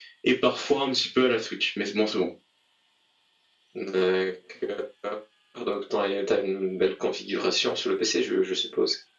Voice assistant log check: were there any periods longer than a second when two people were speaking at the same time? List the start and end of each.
none

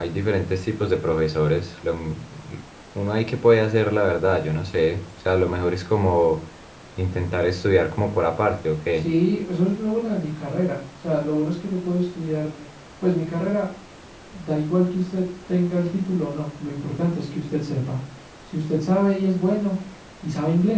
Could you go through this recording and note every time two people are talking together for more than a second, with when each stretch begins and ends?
none

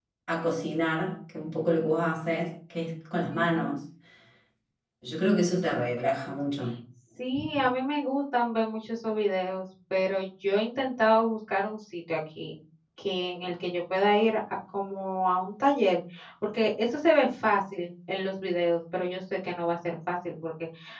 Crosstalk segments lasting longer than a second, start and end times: none

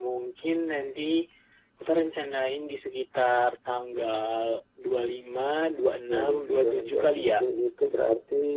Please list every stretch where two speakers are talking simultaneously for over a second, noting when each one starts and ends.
6.1-7.4

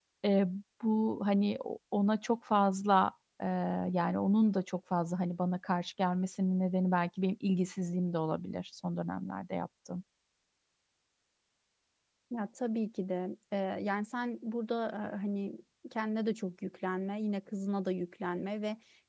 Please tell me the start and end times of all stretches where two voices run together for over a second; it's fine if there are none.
none

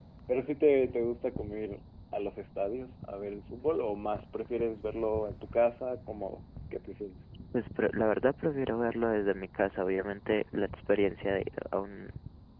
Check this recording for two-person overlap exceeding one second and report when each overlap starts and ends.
none

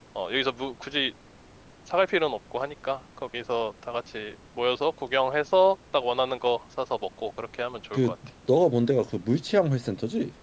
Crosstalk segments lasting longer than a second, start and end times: none

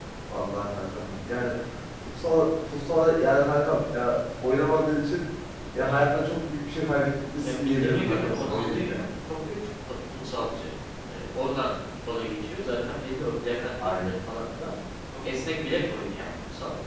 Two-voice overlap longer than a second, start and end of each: 7.4-8.9

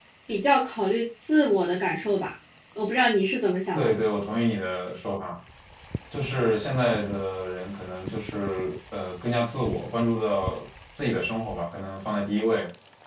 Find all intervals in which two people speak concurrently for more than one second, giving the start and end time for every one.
none

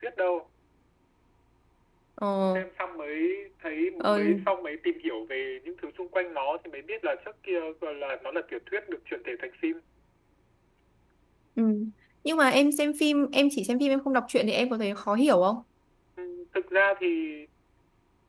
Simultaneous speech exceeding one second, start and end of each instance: none

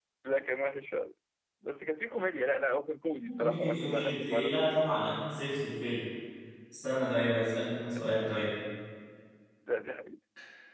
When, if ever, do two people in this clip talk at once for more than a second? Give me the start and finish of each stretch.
3.4-4.8

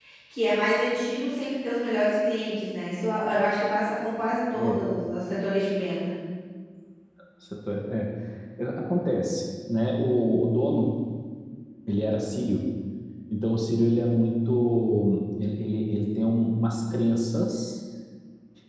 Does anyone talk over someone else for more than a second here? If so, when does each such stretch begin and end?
none

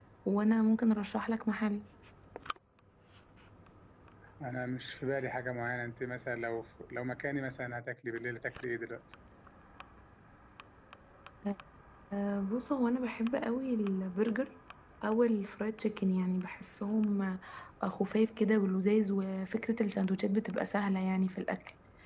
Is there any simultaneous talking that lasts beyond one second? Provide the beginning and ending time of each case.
none

